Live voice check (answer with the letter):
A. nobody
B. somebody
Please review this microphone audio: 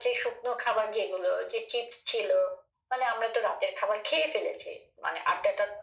A